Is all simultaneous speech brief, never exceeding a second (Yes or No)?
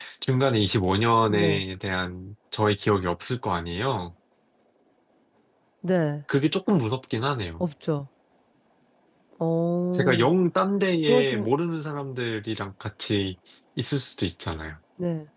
Yes